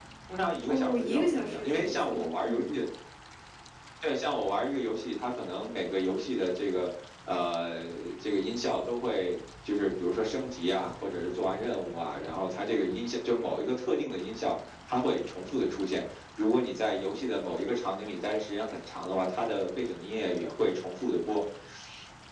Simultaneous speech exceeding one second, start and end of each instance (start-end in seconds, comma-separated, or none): 0.7-2.7